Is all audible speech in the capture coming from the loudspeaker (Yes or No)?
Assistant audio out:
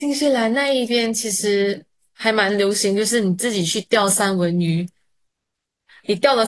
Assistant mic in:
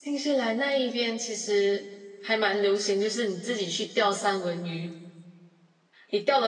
Yes